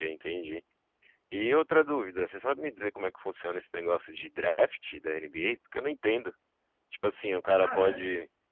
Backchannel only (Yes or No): Yes